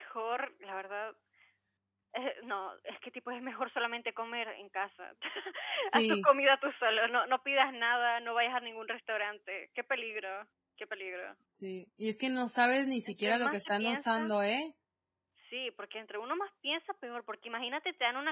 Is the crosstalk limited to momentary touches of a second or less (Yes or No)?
No